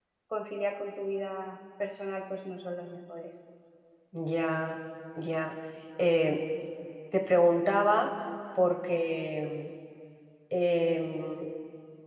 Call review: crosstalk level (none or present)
none